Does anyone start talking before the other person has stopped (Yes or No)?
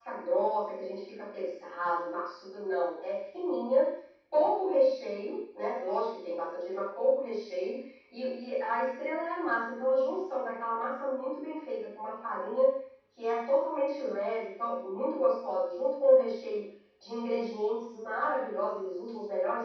No